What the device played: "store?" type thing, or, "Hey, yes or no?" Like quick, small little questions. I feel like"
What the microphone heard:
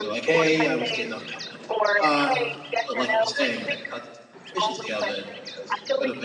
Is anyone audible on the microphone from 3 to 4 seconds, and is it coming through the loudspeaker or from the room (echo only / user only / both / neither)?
both